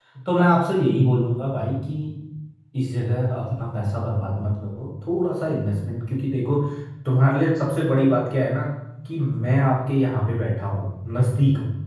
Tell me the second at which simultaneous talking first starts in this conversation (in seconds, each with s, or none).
none